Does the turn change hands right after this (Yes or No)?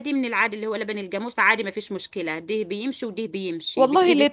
Yes